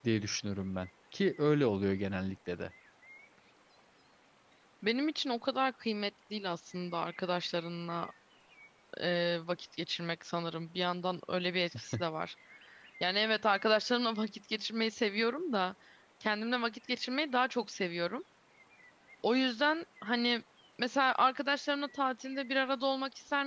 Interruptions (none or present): none